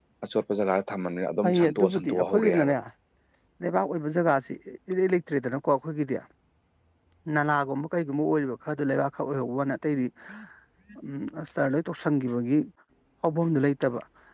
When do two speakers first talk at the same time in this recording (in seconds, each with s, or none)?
1.4 s